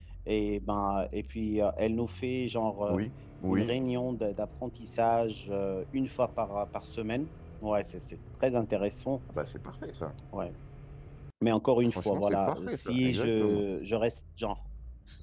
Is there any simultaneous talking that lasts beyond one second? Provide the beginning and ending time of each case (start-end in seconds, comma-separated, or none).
11.9-13.6